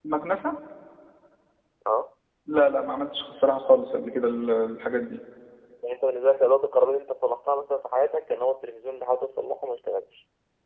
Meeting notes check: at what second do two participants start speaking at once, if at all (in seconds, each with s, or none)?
none